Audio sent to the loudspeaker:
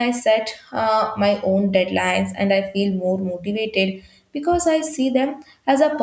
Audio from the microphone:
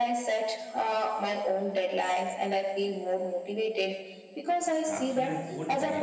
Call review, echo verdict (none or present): present